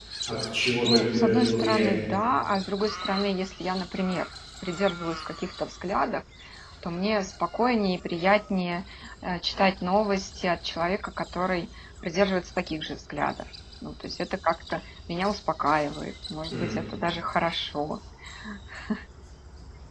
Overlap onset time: 0.8 s

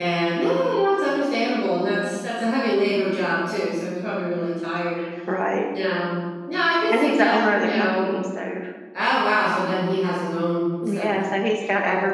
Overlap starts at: 6.9 s

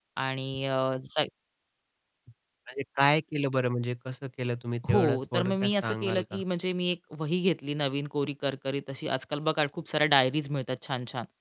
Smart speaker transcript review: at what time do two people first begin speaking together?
4.8 s

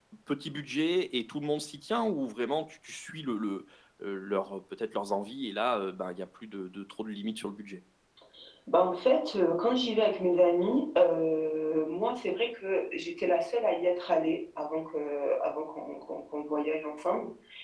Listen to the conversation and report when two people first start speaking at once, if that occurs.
none

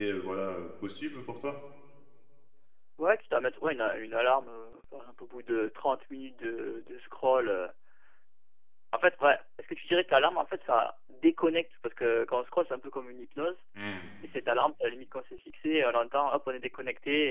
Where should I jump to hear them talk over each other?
none

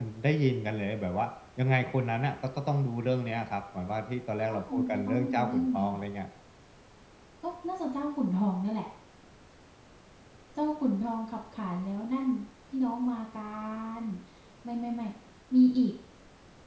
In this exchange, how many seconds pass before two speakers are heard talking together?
4.4 s

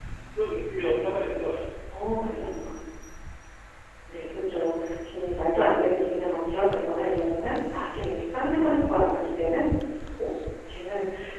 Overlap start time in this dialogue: none

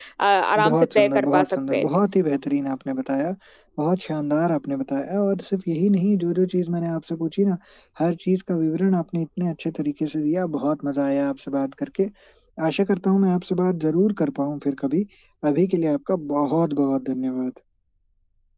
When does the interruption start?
0.6 s

